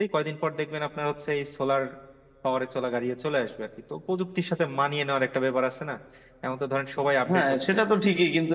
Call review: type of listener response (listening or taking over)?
taking over